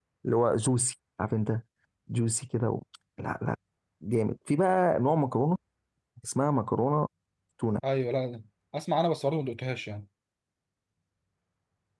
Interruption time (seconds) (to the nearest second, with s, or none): none